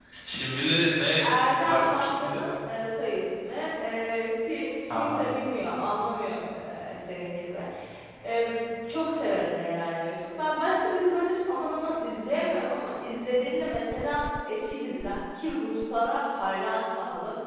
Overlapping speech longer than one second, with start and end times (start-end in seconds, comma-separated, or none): 1.2-2.4